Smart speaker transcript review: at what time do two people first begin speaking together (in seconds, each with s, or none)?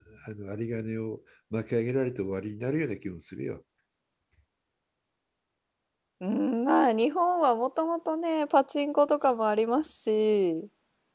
none